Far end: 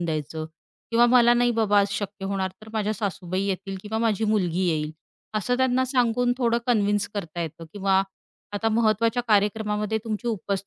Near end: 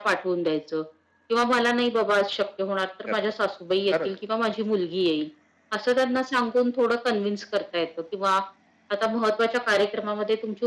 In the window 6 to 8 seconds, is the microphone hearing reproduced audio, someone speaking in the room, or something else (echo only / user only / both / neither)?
echo only